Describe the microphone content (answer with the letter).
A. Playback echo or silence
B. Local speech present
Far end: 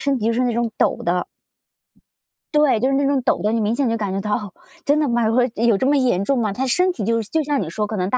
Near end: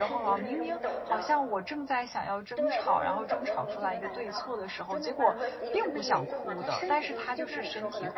B